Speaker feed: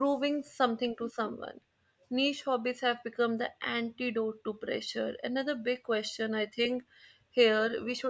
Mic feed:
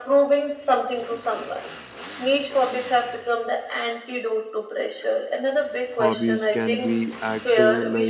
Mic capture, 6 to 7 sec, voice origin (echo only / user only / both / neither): both